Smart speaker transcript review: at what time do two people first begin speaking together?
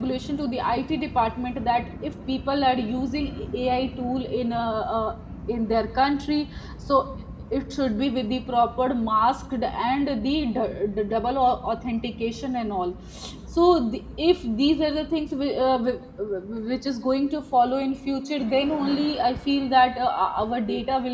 none

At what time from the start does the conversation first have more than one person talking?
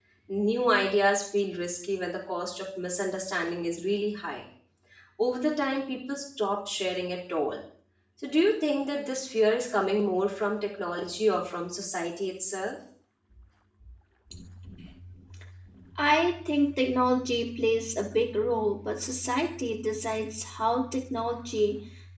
none

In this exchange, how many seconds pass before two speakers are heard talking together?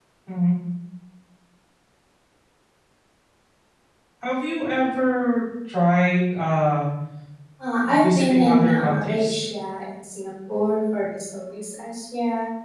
7.8 s

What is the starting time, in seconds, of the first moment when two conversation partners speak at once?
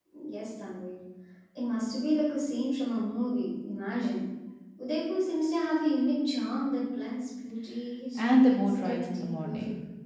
8.2 s

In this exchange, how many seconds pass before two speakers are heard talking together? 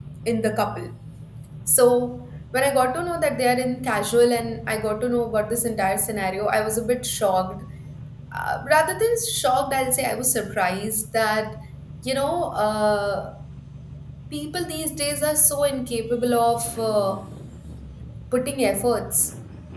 none

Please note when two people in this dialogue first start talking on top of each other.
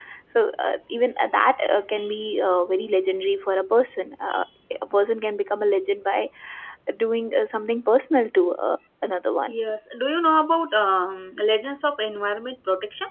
none

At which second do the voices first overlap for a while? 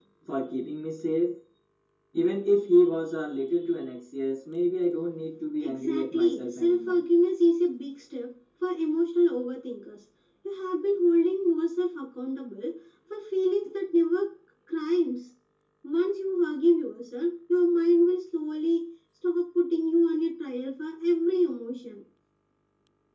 5.6 s

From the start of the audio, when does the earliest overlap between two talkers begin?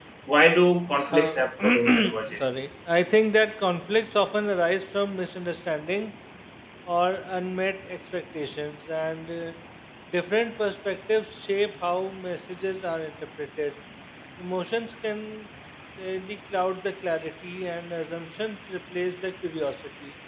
1.2 s

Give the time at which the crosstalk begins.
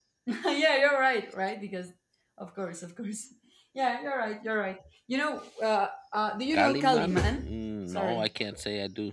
6.5 s

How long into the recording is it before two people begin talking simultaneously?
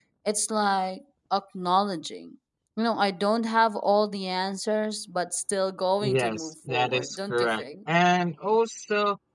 6.0 s

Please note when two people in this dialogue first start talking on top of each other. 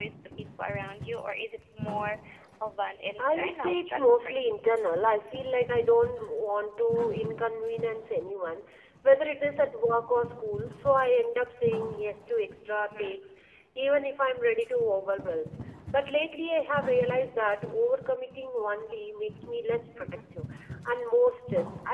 3.2 s

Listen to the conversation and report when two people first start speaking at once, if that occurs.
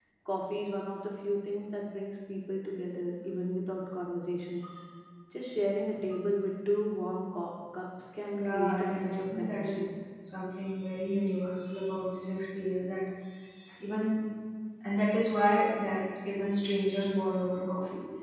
8.3 s

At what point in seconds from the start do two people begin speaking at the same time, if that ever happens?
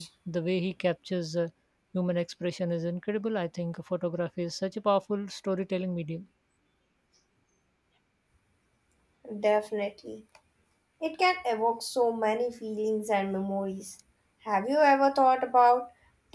none

